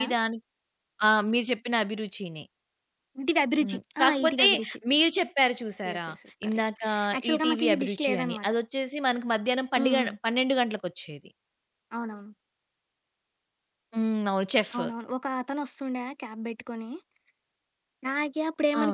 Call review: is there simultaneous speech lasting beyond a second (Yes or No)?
Yes